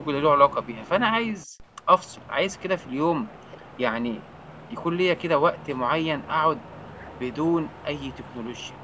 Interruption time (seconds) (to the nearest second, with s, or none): none